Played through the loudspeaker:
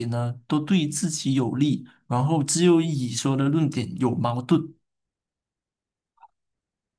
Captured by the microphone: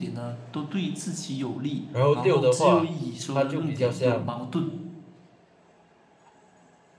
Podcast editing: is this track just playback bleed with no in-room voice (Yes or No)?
No